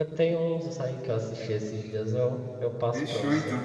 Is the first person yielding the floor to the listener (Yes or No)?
Yes